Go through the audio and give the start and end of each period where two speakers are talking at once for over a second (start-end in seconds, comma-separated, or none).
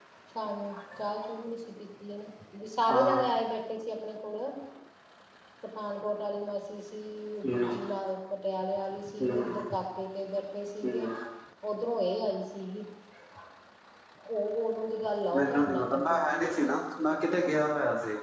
15.4-17.2